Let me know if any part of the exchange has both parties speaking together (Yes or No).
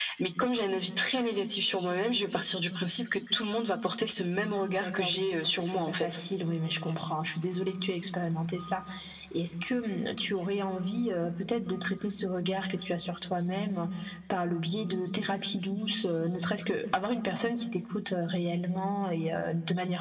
Yes